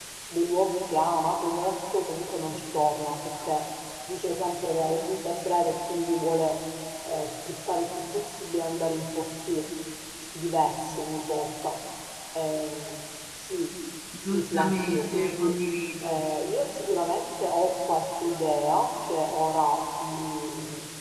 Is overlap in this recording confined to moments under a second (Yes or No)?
No